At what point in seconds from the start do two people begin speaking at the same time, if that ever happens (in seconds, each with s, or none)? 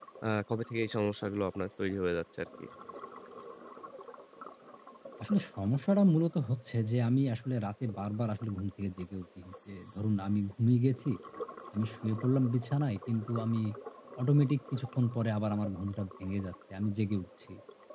none